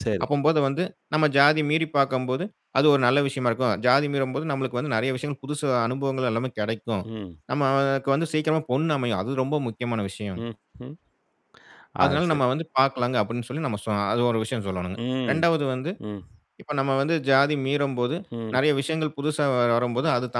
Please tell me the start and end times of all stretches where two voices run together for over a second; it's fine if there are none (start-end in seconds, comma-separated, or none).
none